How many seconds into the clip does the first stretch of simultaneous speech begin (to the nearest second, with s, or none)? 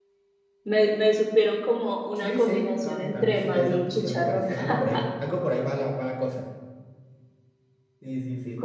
2 s